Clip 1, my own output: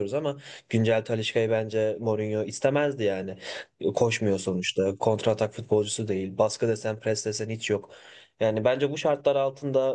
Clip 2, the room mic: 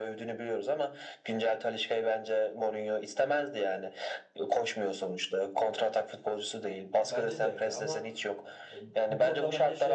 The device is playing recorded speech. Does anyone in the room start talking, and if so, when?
7 s

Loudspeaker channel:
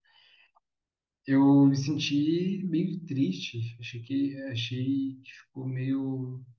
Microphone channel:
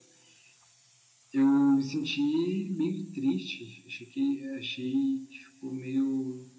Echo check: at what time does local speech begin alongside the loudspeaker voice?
none

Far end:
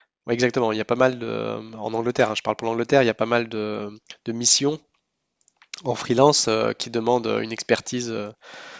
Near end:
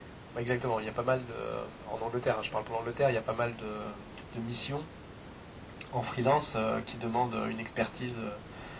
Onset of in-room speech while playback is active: none

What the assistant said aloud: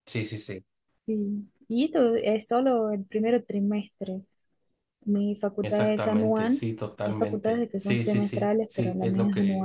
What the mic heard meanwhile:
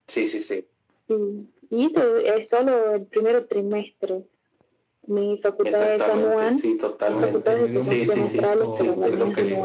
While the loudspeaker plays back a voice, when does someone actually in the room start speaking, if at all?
7 s

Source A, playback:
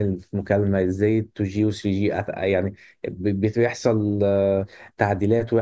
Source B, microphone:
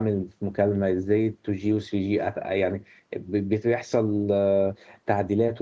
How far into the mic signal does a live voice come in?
none

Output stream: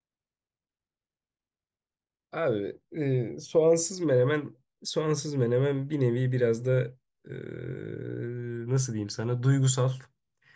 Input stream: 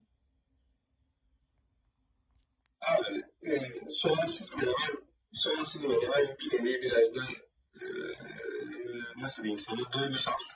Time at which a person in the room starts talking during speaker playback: none

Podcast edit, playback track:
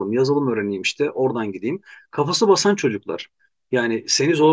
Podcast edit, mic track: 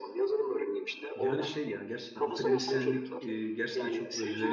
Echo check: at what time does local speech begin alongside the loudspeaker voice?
1 s

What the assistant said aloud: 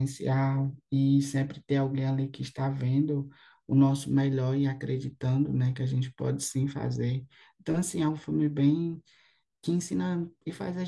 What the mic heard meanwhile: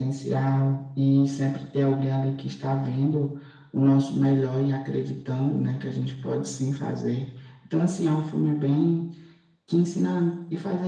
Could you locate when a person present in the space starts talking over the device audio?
none

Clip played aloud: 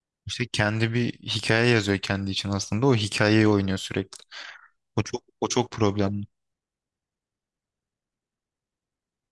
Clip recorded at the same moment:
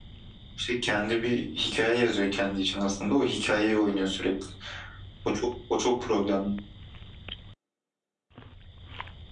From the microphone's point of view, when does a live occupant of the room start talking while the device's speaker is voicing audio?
none

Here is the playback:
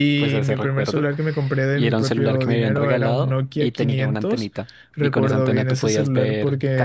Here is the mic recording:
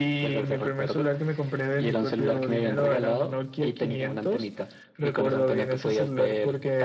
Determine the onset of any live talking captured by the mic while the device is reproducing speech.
none

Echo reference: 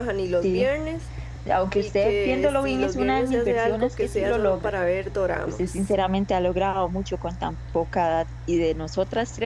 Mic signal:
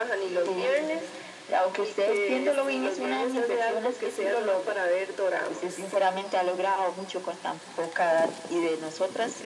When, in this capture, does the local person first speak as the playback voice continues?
none

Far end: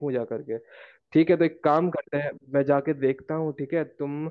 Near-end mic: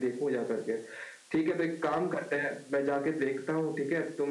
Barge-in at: none

